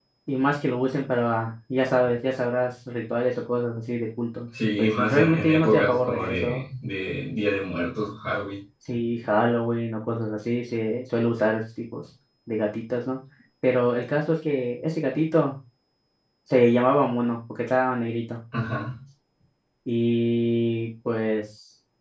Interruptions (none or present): present